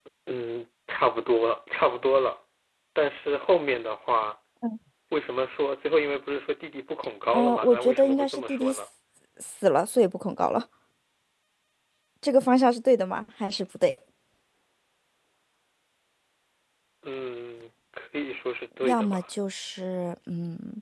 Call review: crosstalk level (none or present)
present